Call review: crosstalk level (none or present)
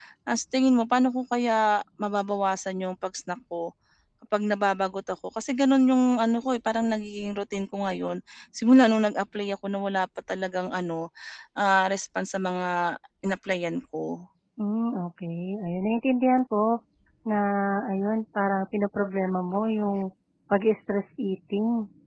none